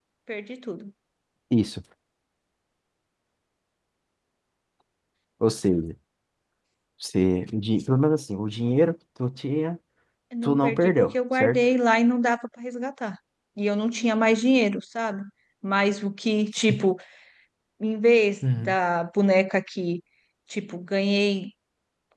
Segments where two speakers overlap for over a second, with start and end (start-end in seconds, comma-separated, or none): 10.4-11.7